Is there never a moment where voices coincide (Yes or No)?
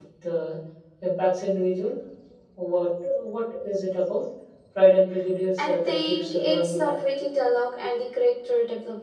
No